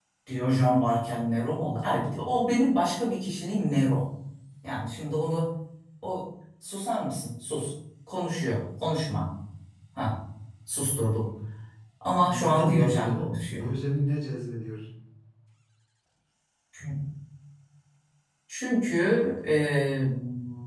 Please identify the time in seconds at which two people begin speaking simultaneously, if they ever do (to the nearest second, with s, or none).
12 s